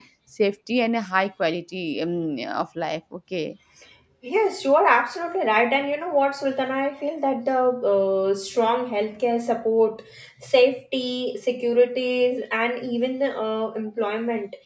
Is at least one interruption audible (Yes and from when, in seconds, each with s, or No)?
No